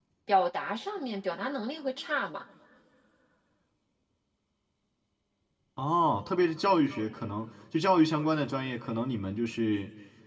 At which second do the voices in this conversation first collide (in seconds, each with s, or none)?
none